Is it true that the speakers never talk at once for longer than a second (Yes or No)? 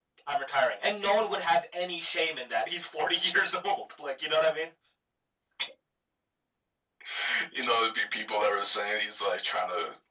Yes